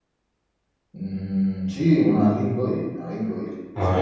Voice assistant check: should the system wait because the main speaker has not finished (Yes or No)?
Yes